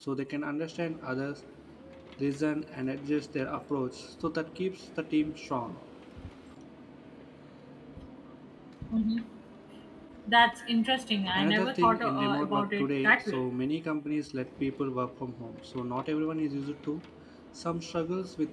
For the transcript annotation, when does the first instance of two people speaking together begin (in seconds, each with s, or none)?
11.3 s